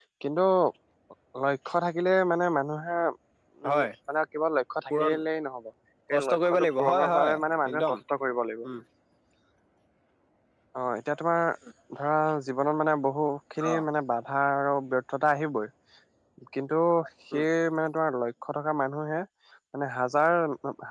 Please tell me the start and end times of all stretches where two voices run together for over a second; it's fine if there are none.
6.1-7.3

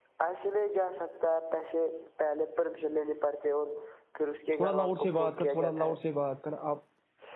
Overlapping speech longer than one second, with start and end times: 4.6-6.0

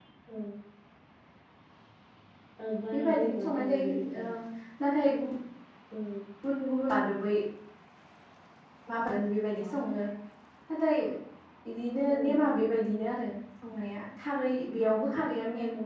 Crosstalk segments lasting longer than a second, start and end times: 2.9-4.2

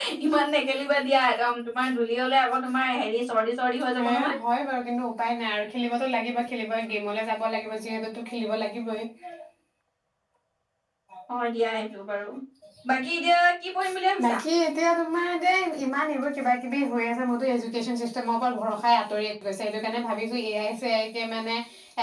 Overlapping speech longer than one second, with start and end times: none

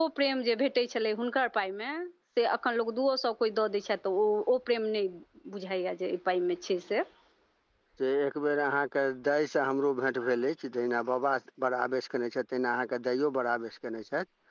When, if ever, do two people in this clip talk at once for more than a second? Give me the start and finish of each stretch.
none

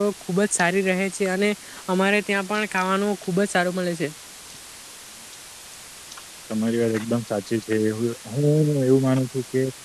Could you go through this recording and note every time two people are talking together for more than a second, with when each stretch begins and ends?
none

